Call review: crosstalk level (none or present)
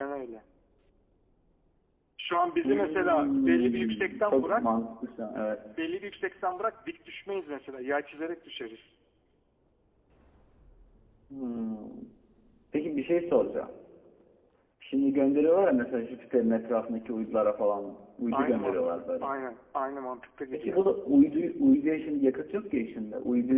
present